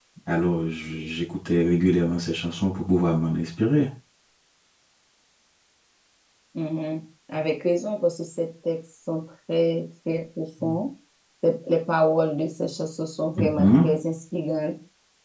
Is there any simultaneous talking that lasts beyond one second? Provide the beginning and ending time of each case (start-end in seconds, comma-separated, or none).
none